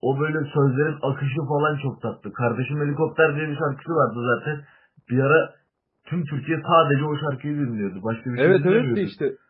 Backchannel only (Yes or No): No